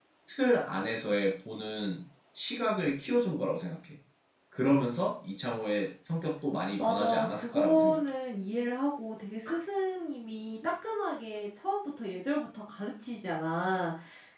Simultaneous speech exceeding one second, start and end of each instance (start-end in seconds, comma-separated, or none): 6.8-8.0